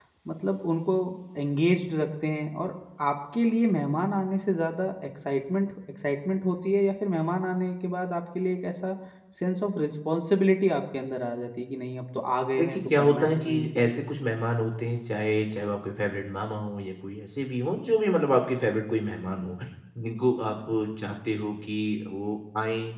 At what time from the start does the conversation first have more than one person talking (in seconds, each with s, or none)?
12.5 s